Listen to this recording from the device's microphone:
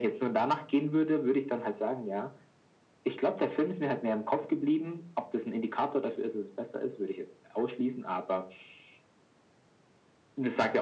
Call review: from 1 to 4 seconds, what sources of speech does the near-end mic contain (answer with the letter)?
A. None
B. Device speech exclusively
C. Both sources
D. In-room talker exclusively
B